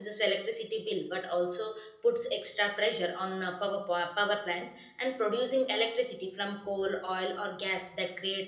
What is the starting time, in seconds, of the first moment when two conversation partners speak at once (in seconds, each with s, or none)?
none